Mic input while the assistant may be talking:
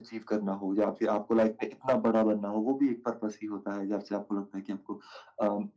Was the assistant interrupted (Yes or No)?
No